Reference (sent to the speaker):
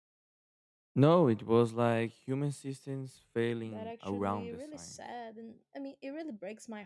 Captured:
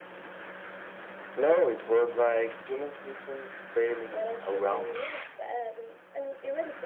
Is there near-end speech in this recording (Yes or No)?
No